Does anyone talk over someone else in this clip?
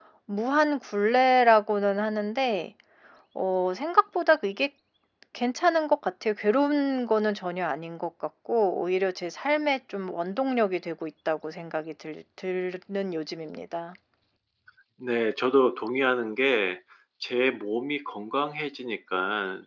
No

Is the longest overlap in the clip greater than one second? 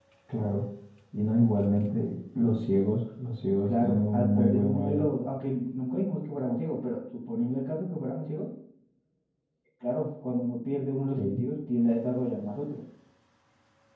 Yes, from 3.6 s

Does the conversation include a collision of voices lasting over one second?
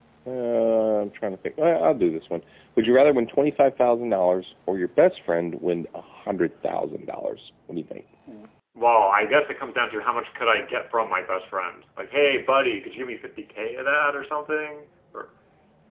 No

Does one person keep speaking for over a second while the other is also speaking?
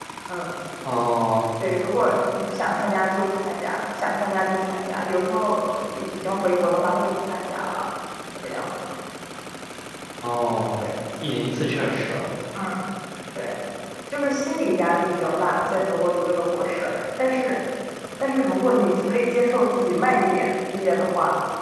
No

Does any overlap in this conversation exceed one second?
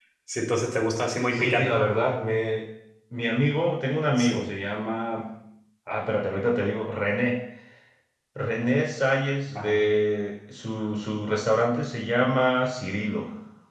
No

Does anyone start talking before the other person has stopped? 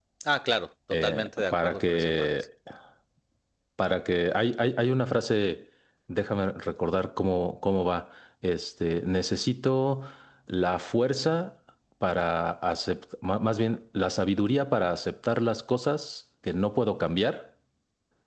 Yes, from 0.9 s

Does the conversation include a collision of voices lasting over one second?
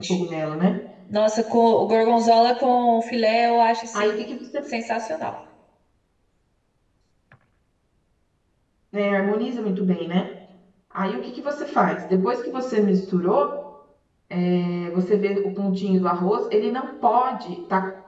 No

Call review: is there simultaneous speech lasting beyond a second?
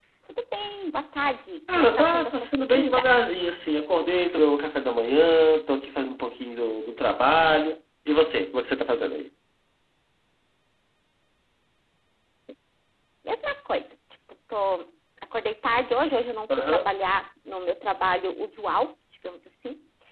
Yes, from 1.7 s

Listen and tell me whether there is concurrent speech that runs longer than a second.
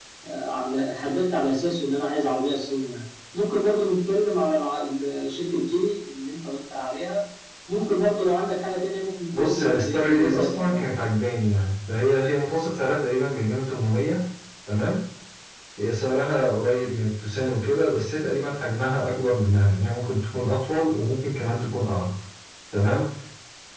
Yes, from 9.3 s

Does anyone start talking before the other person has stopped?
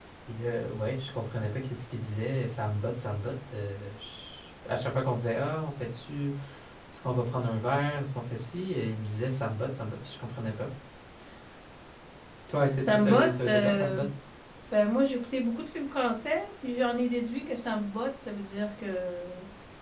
Yes, from 12.8 s

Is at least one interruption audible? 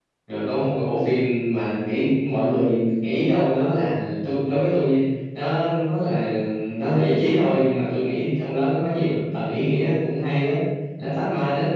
No

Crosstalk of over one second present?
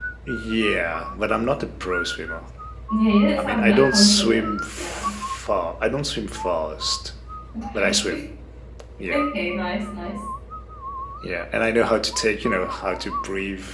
Yes, from 3.4 s

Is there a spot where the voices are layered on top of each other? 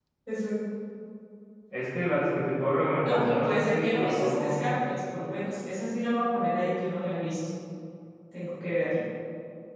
Yes, from 3.0 s

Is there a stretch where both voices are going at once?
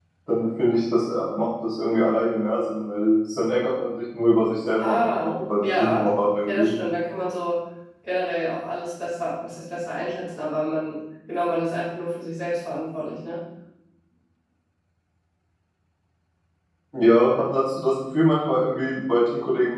Yes, from 4.8 s

